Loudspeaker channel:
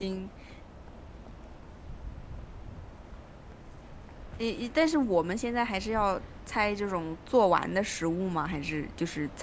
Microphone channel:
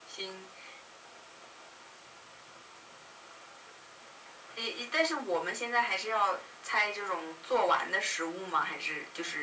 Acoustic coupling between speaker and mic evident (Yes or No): Yes